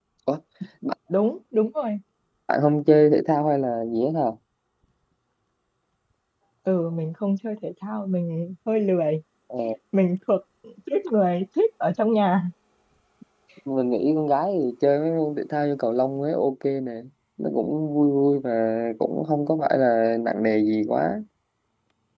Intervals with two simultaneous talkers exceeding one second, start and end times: none

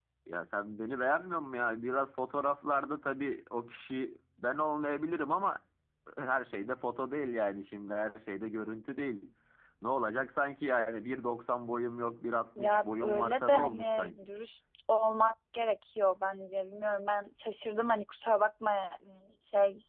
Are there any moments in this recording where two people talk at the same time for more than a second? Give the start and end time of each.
12.6-14.2

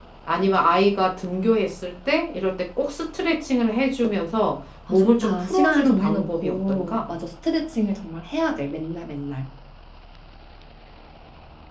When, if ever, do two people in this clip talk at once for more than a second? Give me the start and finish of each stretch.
4.9-7.0

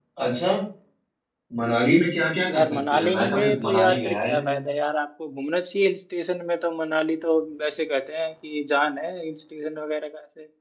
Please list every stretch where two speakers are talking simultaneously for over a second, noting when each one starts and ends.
2.5-4.6

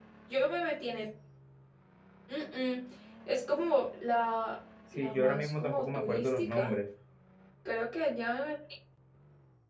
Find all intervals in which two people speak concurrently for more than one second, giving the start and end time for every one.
5.0-6.7

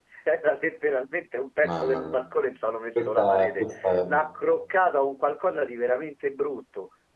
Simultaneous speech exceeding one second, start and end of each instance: 3.0-4.2

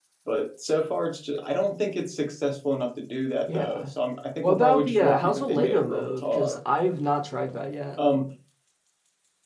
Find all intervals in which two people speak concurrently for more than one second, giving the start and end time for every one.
4.4-6.6

